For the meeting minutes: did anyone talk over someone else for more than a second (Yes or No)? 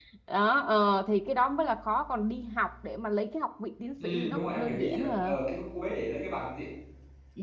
Yes